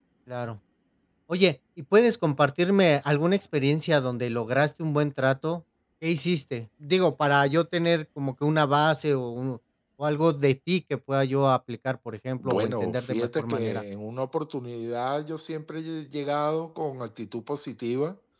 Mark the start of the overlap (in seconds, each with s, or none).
12.4 s